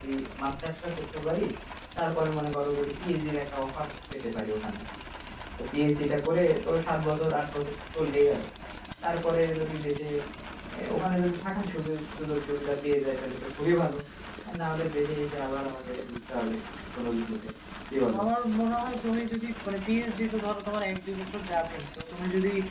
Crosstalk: none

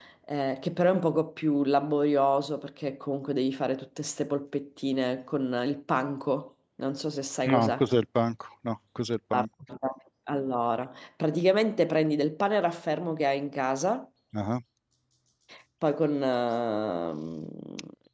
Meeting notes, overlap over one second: none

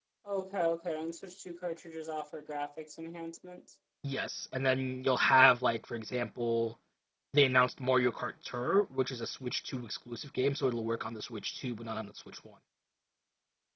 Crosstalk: none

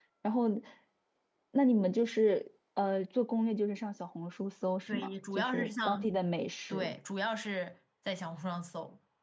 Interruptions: present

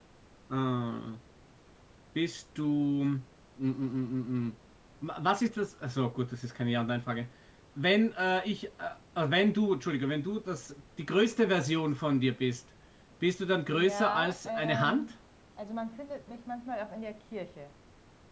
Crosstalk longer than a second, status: present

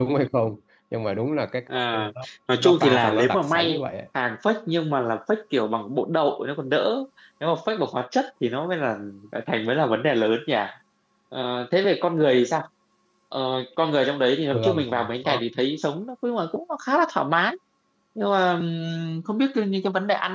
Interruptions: present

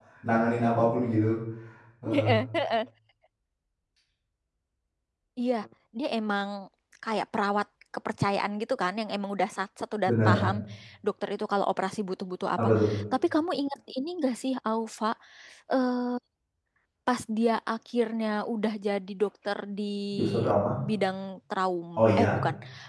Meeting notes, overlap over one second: none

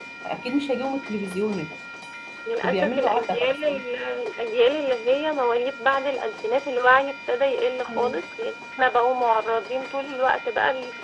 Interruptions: present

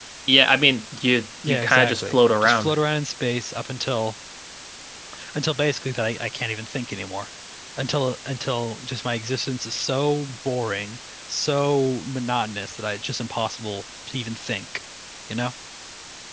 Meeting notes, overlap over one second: present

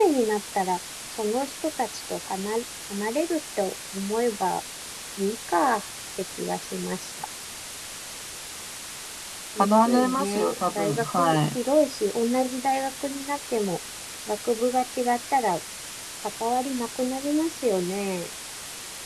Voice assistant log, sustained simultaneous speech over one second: present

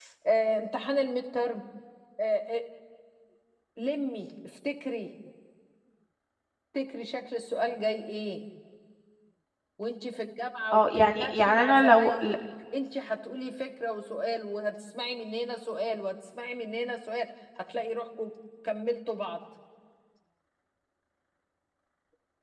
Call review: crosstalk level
present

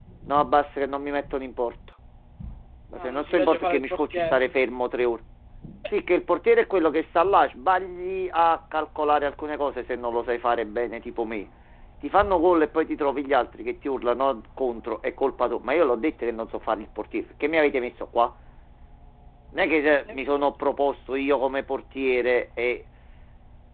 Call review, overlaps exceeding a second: present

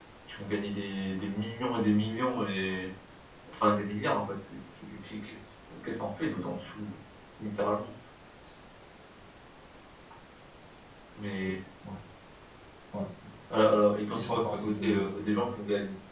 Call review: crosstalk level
present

